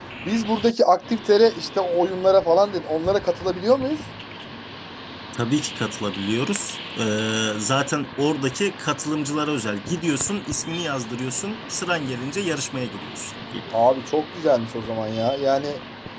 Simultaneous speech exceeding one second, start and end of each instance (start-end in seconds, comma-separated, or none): none